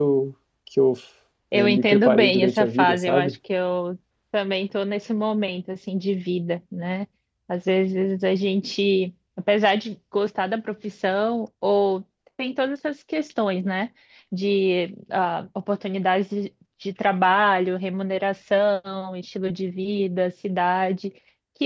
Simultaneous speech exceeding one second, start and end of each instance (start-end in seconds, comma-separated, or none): 1.5-3.4